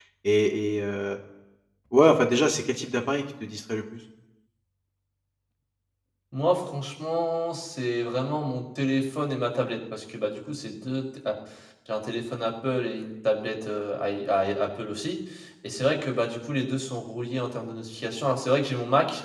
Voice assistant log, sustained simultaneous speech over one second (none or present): none